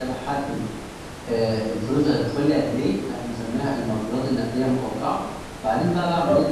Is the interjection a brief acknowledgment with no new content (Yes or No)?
Yes